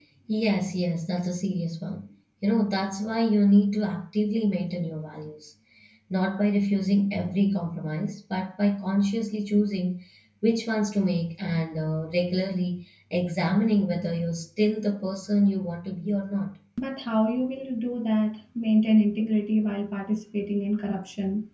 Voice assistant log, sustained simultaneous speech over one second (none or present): none